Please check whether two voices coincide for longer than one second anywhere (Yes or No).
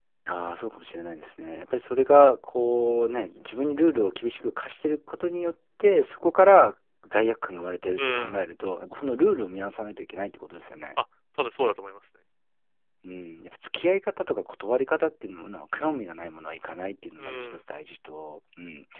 No